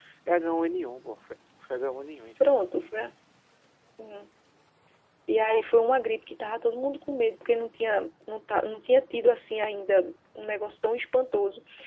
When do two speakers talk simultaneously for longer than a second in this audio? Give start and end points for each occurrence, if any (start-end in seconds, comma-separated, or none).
none